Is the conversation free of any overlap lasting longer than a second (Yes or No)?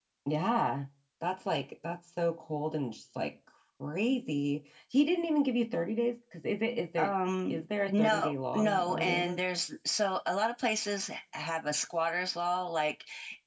No